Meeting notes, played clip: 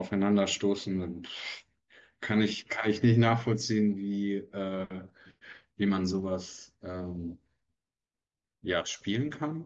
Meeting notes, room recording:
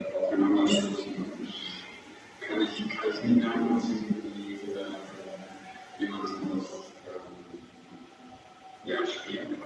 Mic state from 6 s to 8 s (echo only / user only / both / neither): echo only